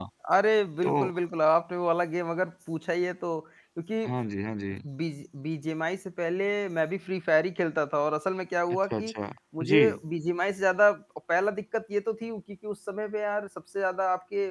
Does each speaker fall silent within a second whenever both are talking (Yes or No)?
Yes